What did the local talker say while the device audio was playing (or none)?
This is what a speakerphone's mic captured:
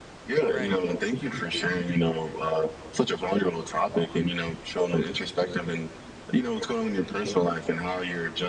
right